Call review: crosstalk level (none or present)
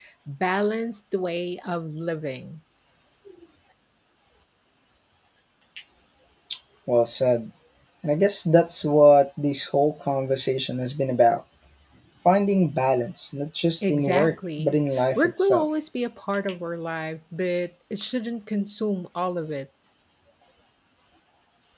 present